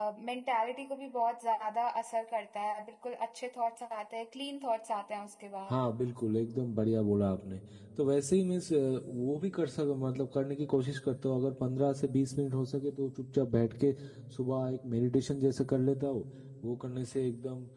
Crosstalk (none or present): none